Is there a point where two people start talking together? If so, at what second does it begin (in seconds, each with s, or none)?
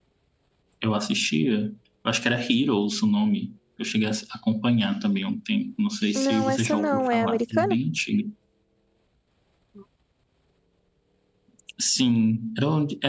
6.2 s